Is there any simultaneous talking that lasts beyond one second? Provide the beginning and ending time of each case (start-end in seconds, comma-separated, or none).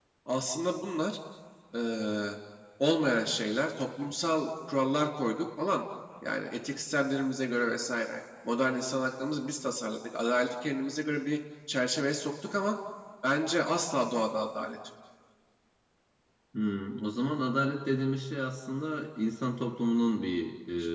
none